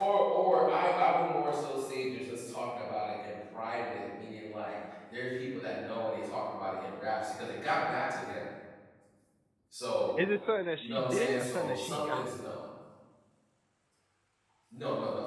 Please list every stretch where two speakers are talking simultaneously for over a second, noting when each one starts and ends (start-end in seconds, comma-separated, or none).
10.8-12.3